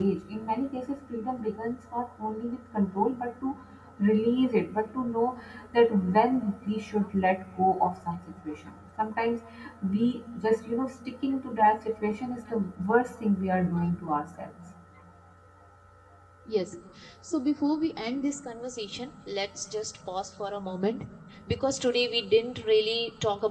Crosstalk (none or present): none